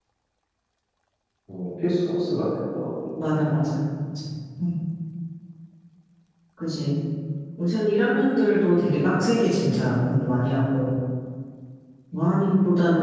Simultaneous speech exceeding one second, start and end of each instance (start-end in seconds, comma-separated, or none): none